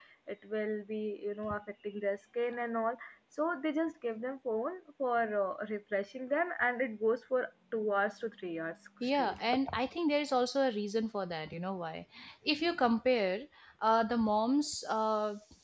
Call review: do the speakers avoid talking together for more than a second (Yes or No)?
Yes